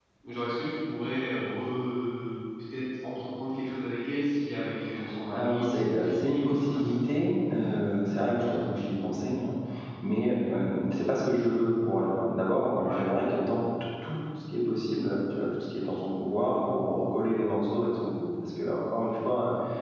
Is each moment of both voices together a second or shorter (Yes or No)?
No